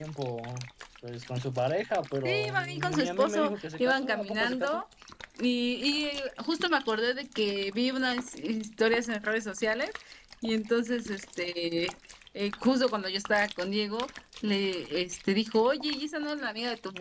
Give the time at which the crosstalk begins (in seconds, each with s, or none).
2.2 s